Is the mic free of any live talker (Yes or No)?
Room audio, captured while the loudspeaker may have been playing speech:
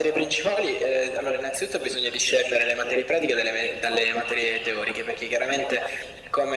Yes